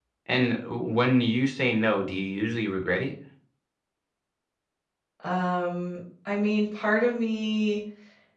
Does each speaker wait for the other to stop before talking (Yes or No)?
Yes